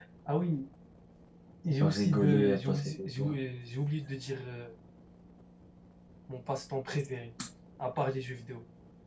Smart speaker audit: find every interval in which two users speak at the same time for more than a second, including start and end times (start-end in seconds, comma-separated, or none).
1.8-3.3